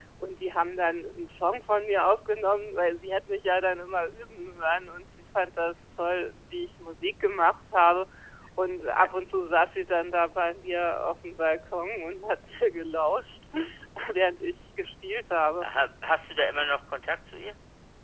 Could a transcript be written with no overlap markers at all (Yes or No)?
Yes